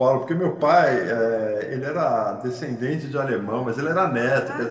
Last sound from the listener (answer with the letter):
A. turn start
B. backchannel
B